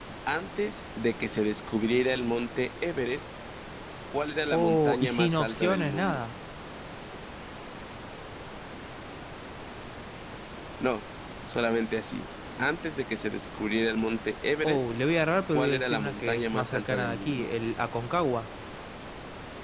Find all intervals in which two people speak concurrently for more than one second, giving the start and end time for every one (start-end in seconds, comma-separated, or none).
4.5-6.2, 15.5-17.5